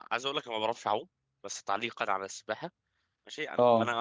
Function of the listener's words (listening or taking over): listening